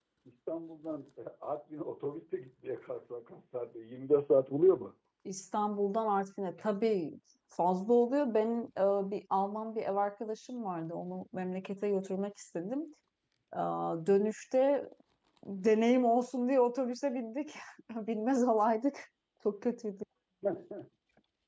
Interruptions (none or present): none